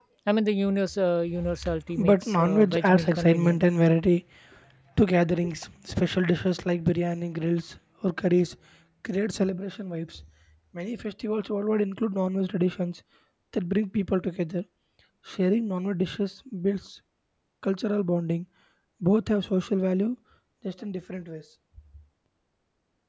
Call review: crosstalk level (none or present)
present